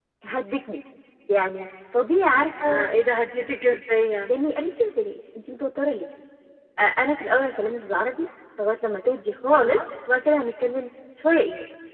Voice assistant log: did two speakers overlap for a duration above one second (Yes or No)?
No